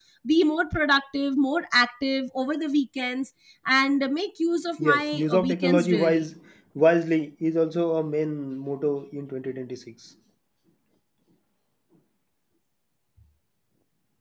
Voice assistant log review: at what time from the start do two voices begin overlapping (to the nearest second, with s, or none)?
5 s